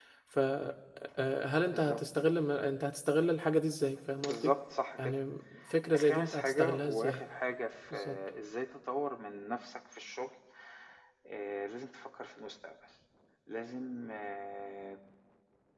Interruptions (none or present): present